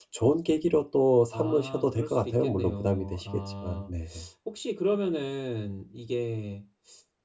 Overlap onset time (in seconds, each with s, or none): 1.3 s